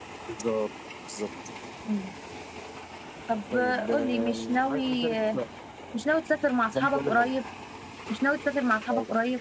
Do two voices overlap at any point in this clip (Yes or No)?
Yes